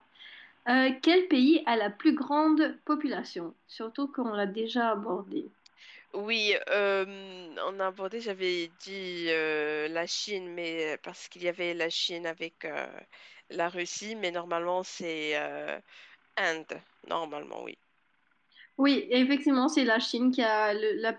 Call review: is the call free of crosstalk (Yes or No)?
Yes